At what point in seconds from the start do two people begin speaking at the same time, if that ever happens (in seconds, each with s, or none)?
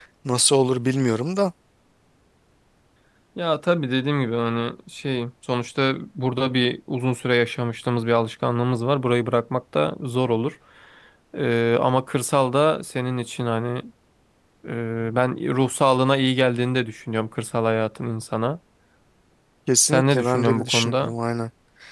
19.9 s